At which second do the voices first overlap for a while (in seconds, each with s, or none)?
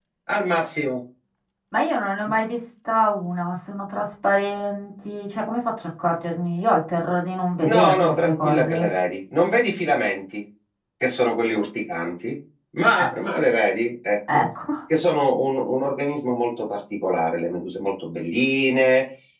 7.6 s